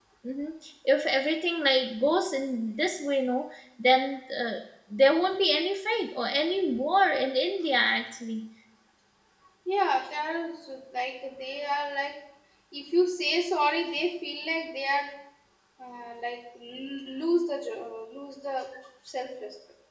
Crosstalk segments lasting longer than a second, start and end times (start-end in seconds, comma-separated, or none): none